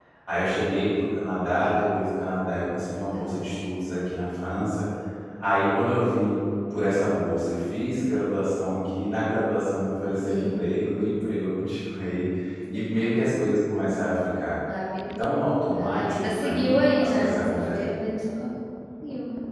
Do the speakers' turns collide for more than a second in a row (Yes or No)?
Yes